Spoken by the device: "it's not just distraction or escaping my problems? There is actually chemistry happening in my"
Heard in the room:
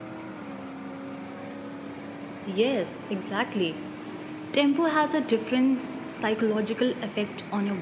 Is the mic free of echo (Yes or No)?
Yes